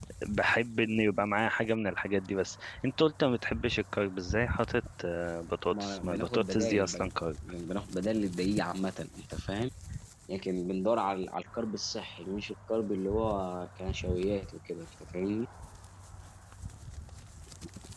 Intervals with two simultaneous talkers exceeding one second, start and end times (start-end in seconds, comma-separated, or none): 5.7-7.1